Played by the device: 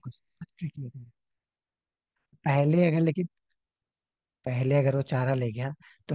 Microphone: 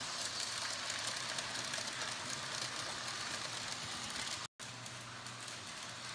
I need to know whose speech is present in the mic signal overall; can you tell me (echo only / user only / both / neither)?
neither